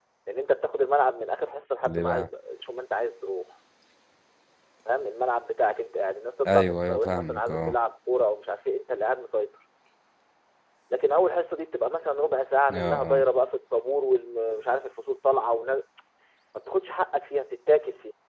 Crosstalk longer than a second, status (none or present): present